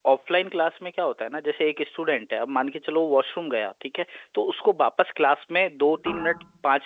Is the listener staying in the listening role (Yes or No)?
Yes